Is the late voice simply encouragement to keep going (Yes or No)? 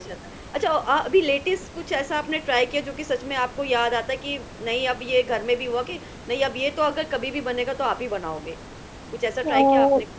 No